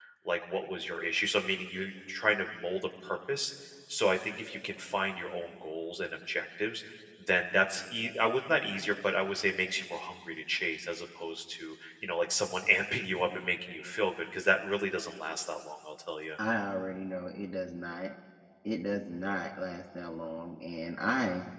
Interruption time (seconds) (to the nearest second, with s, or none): none